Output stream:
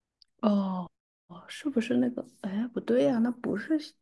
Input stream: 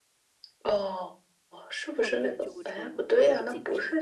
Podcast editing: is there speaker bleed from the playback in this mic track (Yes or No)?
Yes